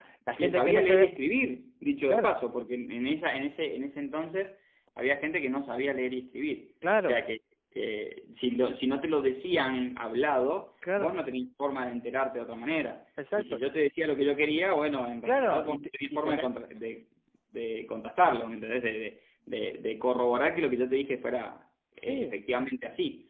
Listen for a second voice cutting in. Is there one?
Yes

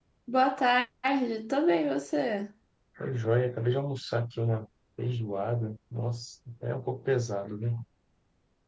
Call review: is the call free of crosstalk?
Yes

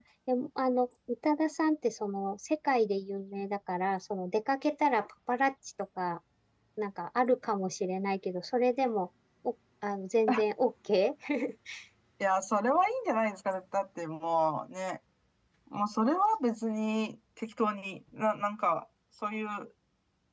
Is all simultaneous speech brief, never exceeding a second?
Yes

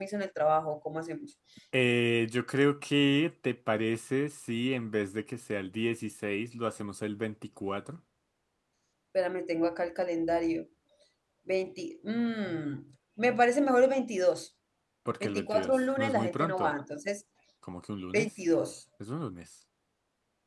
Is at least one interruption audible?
Yes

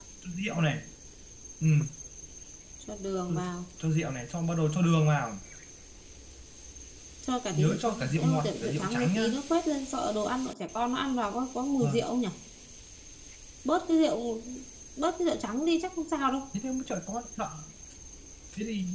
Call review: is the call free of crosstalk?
No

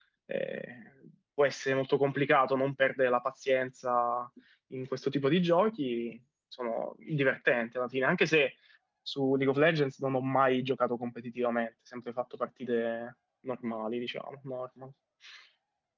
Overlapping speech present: No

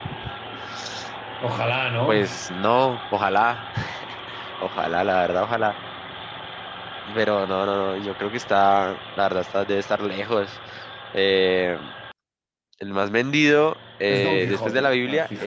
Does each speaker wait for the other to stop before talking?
No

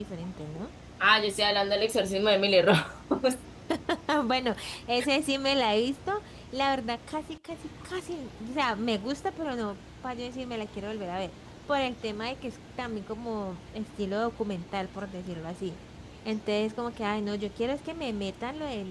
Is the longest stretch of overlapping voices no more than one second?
Yes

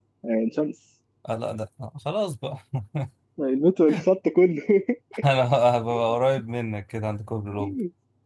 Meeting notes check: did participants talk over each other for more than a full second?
No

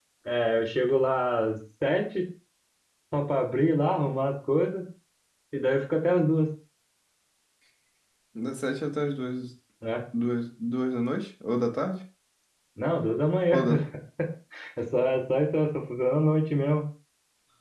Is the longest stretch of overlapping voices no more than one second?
Yes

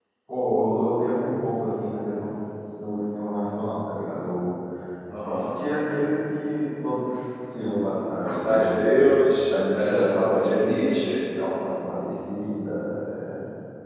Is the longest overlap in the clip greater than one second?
Yes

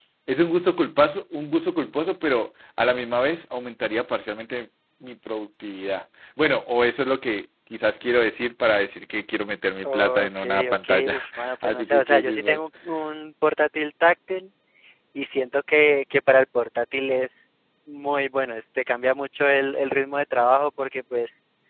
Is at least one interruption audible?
Yes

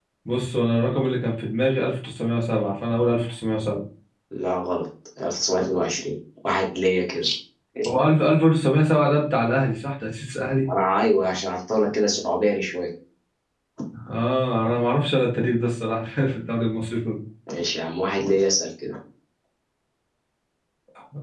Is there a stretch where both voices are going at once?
No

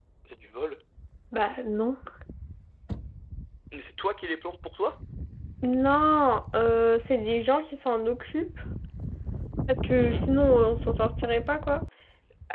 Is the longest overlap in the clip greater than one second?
No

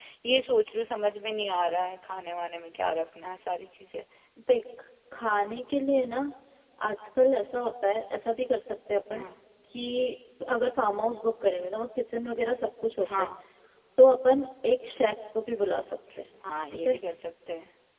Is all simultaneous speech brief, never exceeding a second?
Yes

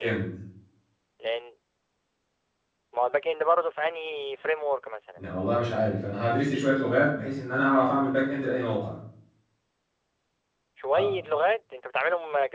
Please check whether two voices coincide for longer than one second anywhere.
No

